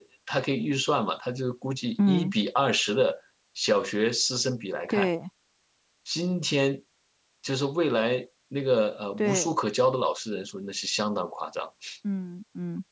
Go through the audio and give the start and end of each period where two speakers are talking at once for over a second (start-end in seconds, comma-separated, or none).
none